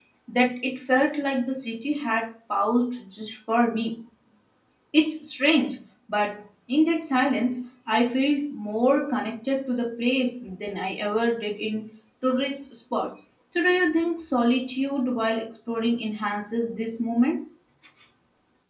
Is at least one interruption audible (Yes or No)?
No